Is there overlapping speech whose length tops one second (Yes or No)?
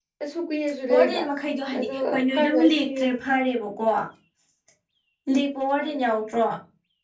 Yes